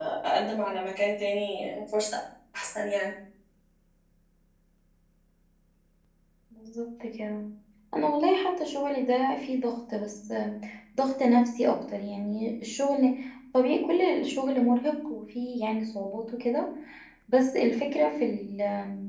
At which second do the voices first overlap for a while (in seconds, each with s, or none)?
none